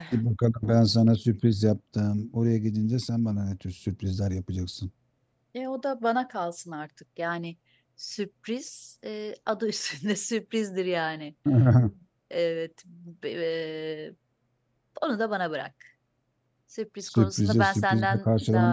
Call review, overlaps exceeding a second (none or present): present